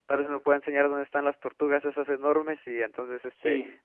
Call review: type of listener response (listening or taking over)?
listening